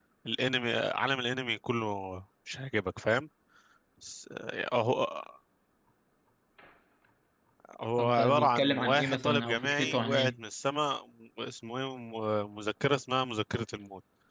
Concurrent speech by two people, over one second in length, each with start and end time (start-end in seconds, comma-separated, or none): 8.0-10.3